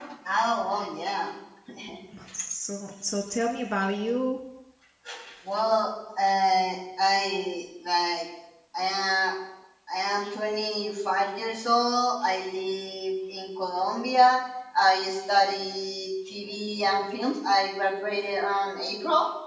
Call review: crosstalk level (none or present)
none